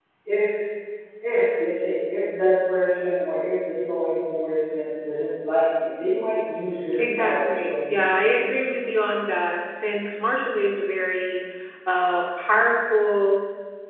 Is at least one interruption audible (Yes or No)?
Yes